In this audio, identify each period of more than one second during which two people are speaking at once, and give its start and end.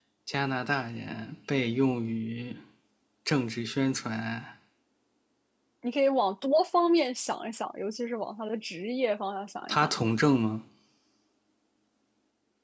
none

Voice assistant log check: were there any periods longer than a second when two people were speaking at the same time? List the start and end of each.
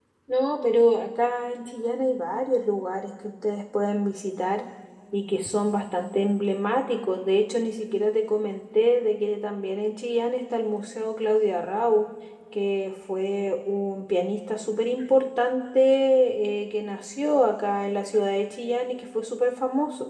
none

